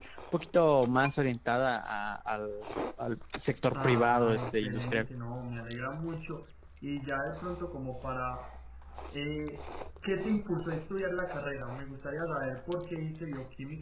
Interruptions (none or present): present